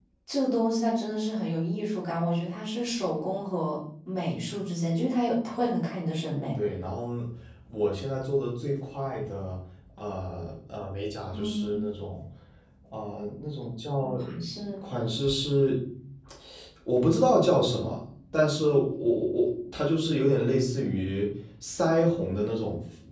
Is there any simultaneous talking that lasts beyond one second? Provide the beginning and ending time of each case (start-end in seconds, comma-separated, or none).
none